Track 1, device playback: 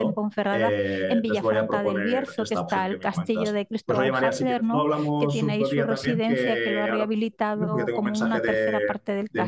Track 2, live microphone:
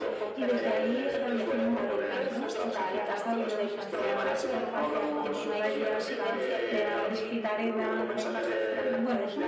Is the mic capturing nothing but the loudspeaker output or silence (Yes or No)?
No